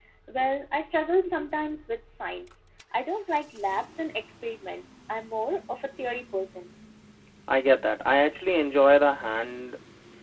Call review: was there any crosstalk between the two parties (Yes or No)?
No